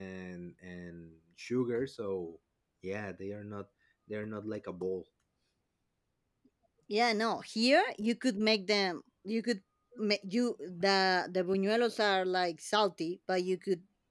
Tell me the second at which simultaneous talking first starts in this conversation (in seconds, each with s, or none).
none